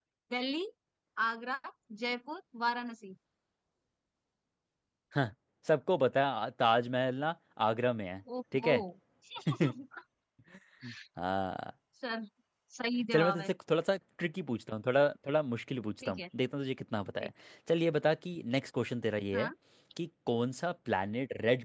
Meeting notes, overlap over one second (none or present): none